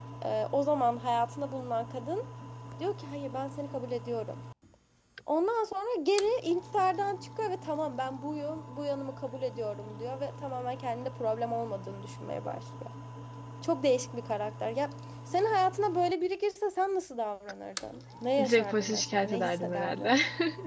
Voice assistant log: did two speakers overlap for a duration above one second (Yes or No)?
Yes